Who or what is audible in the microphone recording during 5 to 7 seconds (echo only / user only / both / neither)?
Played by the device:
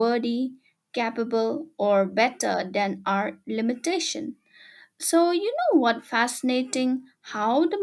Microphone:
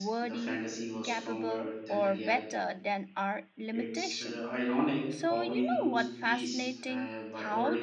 both